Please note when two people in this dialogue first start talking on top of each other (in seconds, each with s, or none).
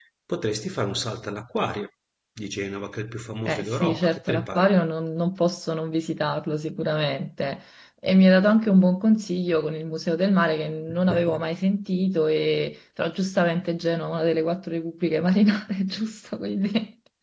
3.4 s